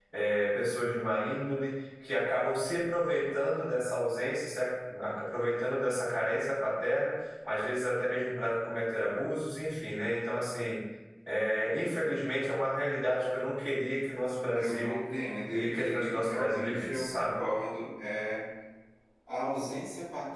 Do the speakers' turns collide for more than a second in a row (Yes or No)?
Yes